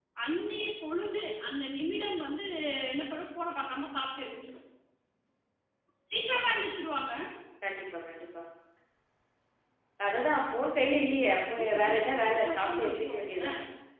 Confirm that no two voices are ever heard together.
No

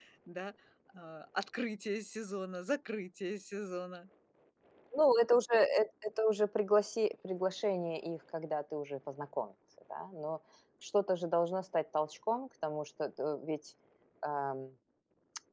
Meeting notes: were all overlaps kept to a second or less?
Yes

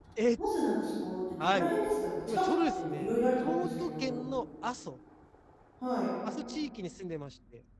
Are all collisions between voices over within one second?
No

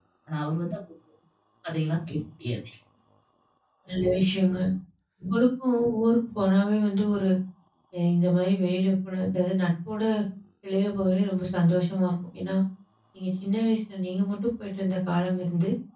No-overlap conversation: Yes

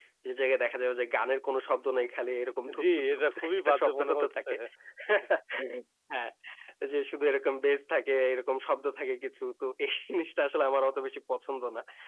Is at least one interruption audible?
Yes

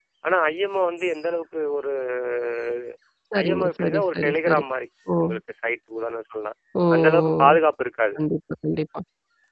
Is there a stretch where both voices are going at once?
Yes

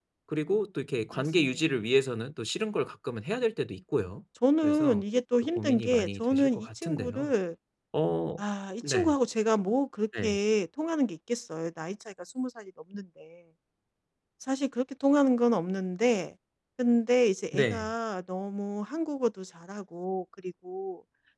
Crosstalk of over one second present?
Yes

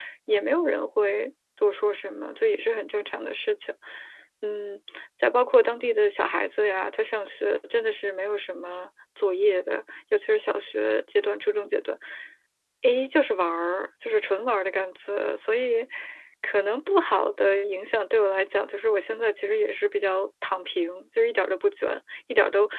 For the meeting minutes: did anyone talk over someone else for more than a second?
No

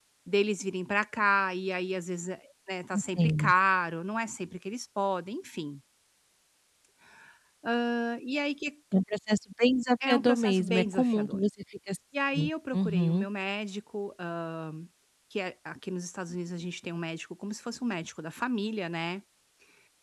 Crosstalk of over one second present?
Yes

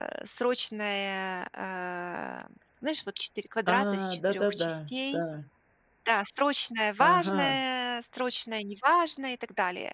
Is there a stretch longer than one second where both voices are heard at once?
Yes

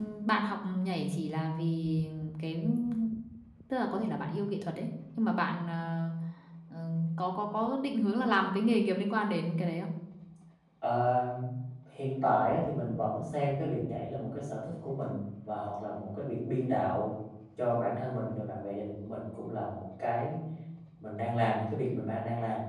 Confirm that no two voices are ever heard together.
Yes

